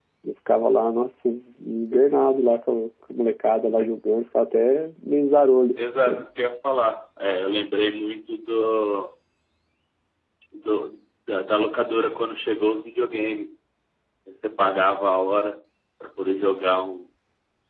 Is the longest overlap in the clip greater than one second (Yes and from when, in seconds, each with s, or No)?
No